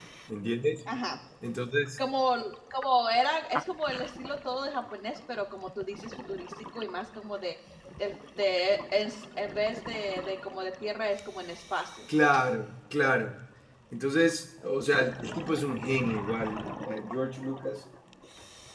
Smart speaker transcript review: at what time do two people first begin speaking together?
none

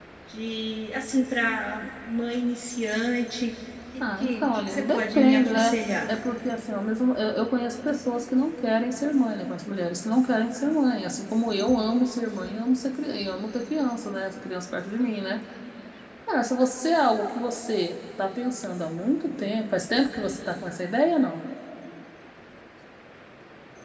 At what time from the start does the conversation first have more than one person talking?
4.0 s

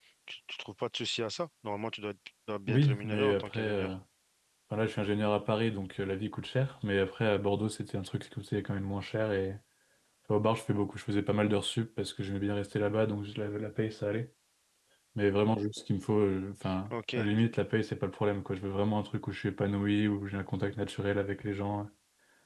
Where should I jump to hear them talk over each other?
2.7 s

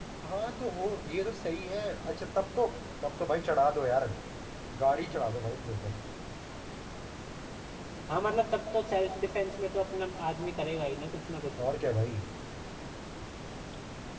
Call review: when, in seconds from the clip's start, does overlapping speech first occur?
none

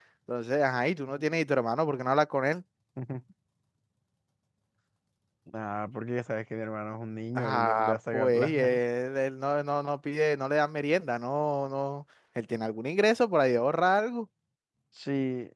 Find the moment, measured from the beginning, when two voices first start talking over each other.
7.3 s

